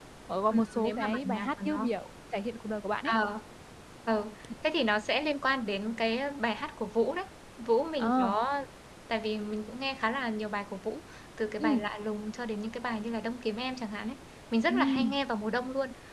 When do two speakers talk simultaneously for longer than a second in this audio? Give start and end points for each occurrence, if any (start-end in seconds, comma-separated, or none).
0.5-1.9